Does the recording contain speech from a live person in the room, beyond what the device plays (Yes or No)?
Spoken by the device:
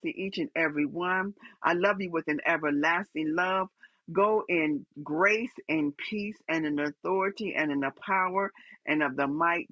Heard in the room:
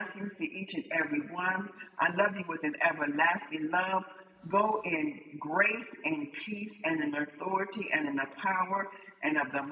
No